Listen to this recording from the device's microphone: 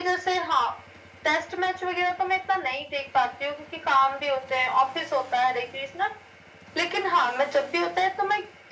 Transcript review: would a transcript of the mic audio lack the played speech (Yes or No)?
No